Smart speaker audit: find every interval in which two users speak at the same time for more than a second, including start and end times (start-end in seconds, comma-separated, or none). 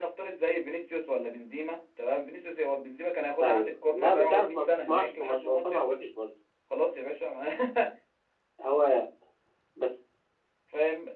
3.4-6.0